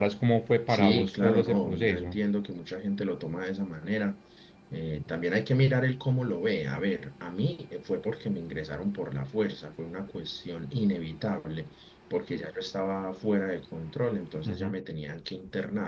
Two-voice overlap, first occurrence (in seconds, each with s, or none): 0.7 s